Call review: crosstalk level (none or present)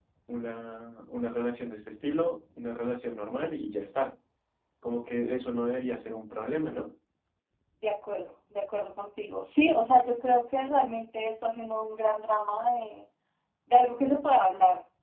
none